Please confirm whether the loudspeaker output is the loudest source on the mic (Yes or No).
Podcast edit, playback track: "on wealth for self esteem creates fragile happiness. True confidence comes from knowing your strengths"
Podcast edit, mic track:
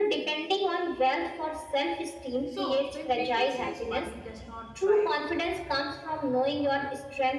Yes